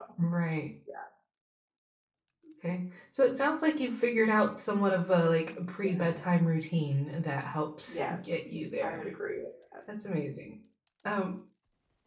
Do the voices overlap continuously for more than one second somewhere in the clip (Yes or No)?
No